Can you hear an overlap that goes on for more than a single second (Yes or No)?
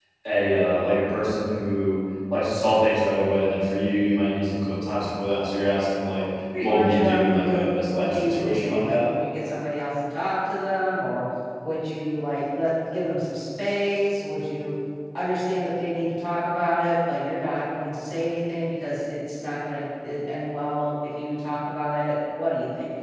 Yes